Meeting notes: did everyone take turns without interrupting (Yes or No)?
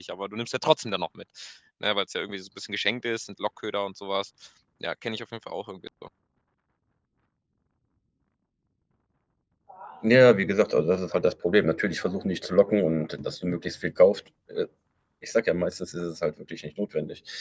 Yes